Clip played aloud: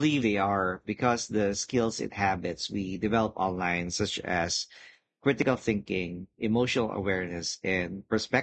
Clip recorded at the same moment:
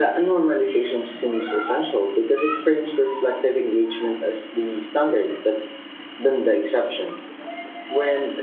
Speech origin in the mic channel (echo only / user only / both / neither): user only